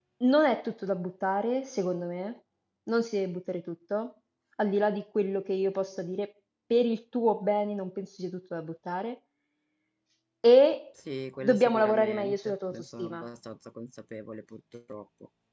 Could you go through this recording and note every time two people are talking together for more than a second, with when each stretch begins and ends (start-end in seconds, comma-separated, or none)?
11.4-13.2